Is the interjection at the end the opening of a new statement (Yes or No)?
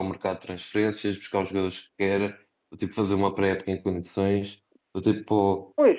No